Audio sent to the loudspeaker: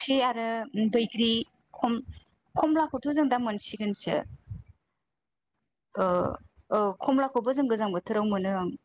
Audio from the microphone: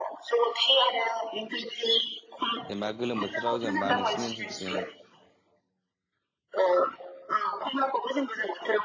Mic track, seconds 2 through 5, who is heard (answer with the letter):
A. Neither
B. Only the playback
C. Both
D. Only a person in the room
C